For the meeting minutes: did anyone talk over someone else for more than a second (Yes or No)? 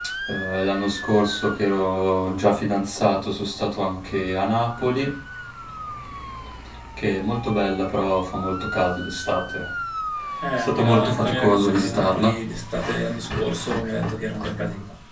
Yes